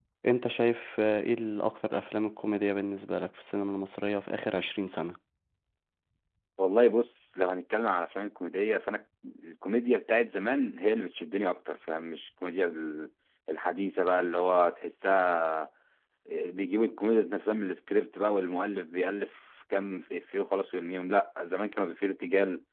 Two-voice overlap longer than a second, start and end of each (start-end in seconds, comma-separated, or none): none